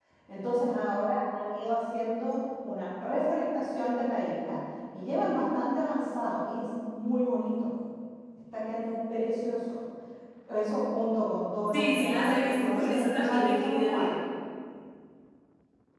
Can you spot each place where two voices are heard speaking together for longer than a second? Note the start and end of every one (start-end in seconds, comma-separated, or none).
11.7-14.1